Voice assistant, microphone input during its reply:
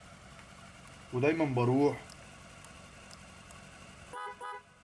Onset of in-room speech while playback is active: 1 s

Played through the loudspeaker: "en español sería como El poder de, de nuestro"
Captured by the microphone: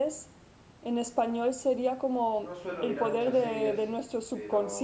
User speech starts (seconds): 2 s

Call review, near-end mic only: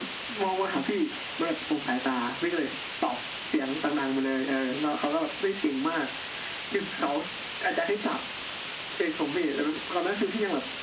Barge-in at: none

